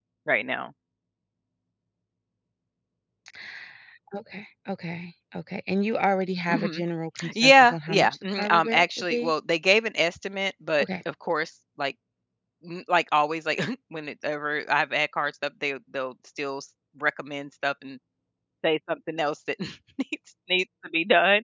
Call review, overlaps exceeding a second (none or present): present